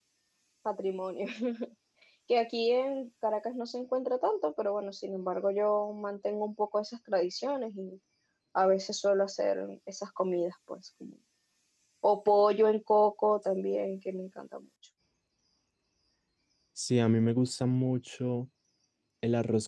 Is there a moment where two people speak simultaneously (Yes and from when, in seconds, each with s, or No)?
No